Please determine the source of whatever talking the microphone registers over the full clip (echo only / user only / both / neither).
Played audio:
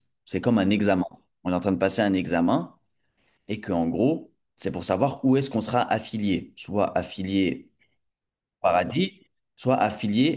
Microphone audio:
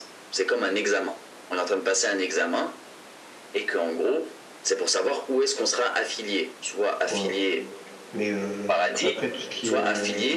both